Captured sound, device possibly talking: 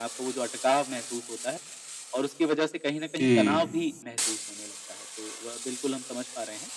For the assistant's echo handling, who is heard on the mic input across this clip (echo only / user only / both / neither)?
both